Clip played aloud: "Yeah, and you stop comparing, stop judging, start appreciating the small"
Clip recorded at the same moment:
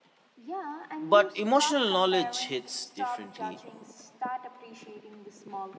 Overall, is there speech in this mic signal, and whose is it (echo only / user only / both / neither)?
both